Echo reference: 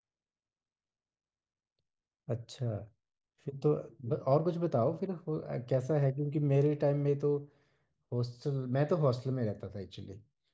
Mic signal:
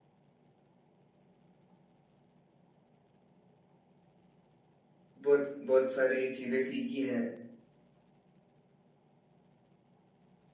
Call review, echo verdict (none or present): none